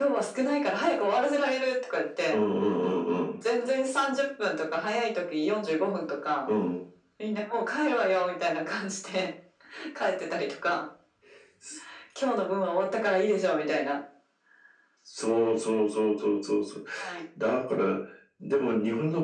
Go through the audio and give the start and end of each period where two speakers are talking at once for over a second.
none

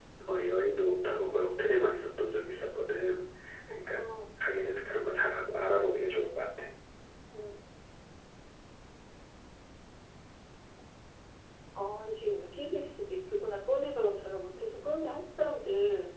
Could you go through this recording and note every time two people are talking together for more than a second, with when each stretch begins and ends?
none

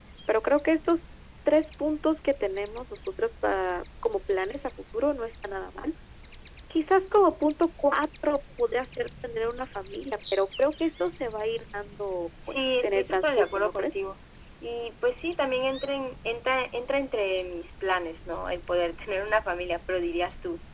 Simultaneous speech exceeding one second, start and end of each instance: 12.5-14.0

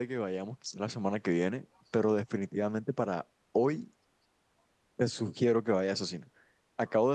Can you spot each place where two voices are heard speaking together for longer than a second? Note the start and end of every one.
none

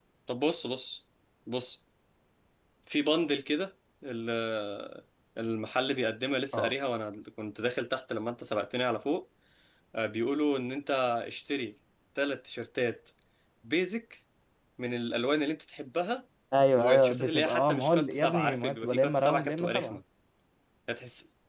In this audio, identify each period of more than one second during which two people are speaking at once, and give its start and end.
16.7-20.0

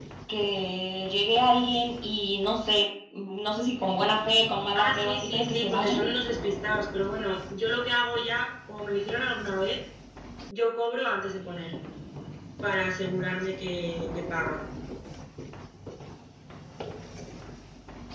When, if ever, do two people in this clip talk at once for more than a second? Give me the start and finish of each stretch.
4.8-6.0

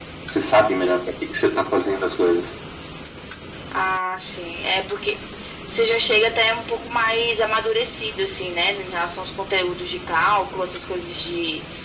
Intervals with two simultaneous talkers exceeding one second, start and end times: none

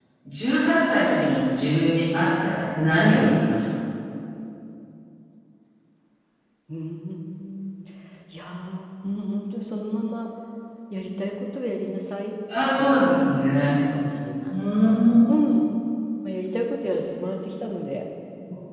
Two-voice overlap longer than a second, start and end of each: none

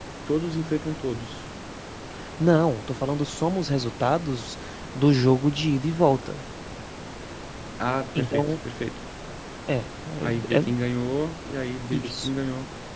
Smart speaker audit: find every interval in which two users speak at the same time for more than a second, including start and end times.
none

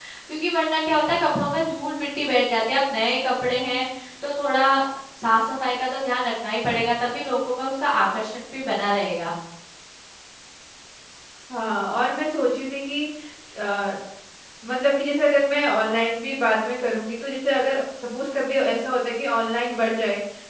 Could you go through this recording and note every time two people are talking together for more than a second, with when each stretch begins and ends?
none

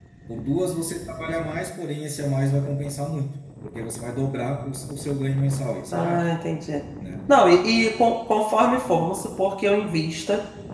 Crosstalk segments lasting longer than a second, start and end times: none

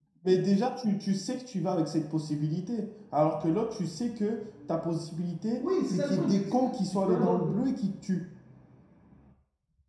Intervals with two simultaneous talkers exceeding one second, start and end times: 5.6-7.5

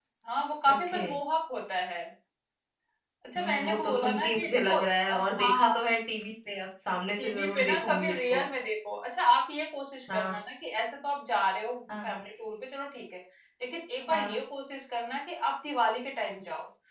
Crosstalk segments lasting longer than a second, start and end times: 3.4-5.7, 7.2-8.4

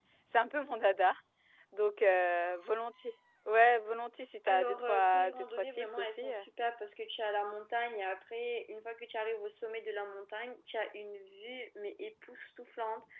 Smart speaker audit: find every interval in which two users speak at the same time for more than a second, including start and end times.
4.5-6.3

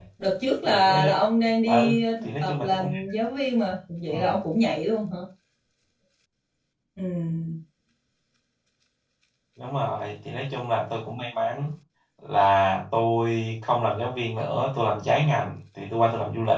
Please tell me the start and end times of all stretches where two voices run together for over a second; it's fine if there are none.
1.6-2.9

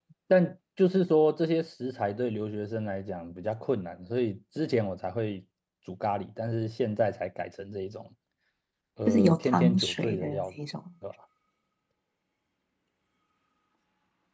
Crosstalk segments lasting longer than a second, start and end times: 9.1-10.4

